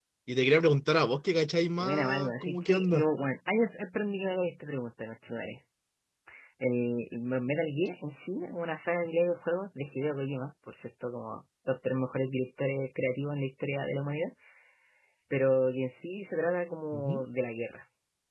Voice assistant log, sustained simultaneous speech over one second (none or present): present